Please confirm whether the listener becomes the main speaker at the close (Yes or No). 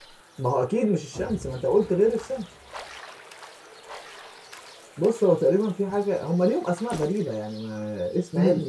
No